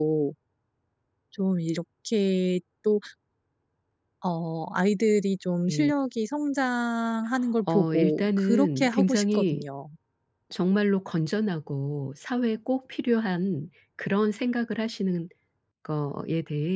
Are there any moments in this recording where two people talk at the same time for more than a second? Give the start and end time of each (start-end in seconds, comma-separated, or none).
7.7-9.6